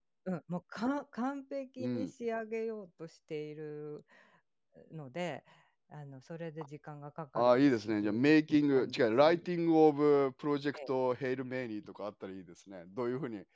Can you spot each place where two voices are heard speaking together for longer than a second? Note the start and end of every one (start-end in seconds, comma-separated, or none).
7.4-9.5